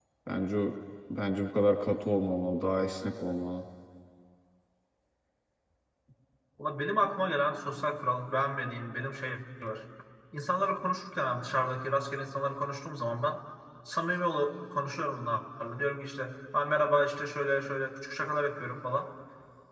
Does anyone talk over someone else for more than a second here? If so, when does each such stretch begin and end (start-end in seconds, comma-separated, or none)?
none